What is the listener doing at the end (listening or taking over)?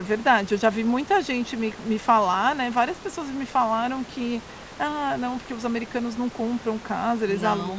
taking over